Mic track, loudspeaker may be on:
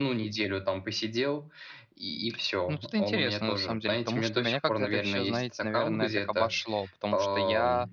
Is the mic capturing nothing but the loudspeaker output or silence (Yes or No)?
No